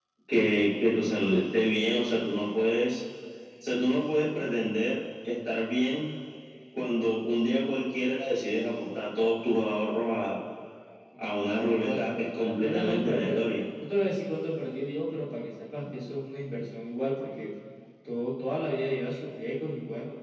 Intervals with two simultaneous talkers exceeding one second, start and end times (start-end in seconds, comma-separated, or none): 11.2-13.4